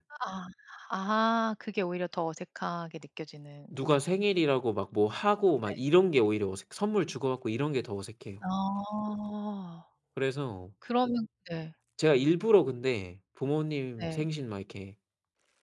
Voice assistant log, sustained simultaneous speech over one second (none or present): none